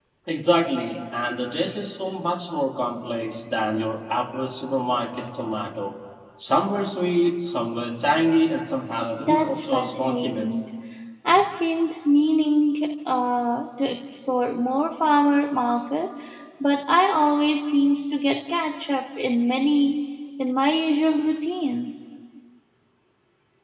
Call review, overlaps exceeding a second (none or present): present